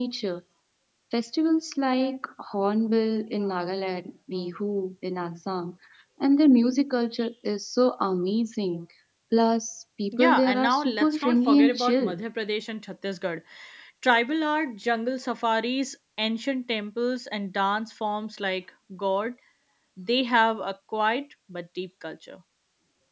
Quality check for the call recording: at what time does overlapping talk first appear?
10.1 s

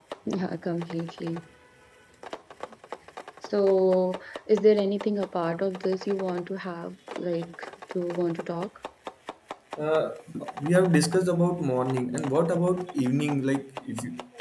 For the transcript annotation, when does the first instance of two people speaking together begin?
none

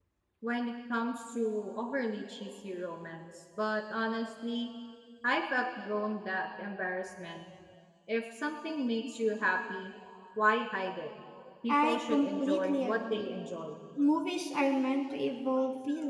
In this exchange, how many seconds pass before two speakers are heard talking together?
11.7 s

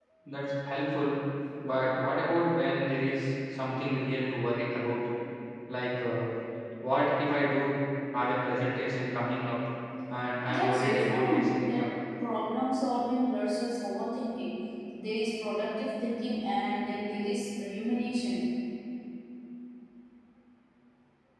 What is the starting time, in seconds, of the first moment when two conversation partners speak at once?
10.5 s

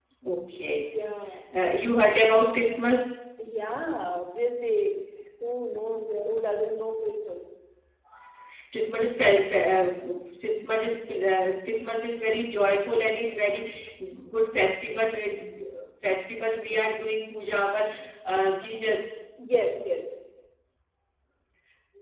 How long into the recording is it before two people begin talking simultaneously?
none

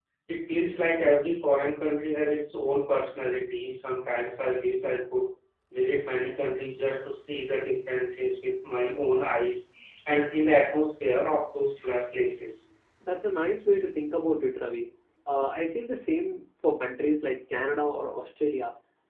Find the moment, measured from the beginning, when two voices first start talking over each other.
none

